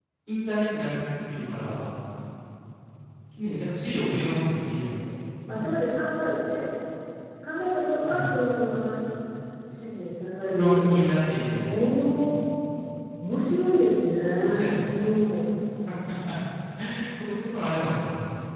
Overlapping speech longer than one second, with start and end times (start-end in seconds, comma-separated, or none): none